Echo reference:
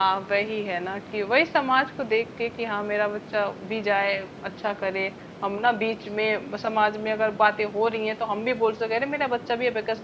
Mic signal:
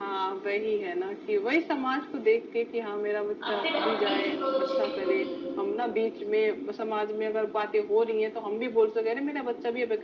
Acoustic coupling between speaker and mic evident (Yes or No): Yes